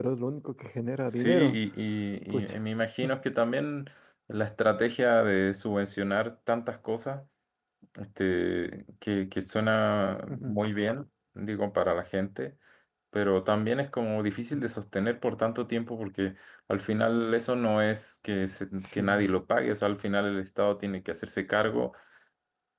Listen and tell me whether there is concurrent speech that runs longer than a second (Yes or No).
No